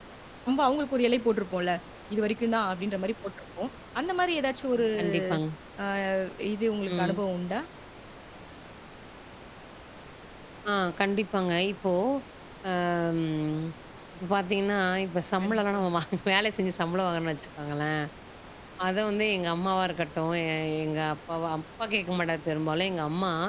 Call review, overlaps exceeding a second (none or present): none